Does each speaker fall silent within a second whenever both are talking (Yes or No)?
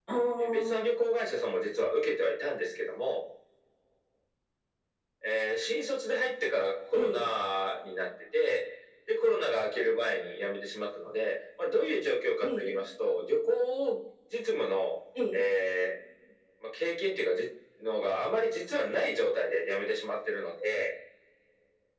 Yes